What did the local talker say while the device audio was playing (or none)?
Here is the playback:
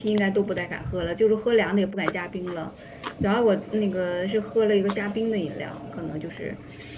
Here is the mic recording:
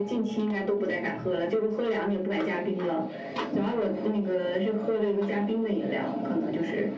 none